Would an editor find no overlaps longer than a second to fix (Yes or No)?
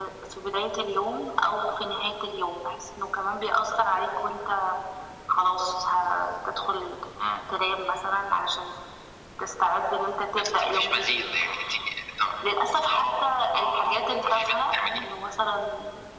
No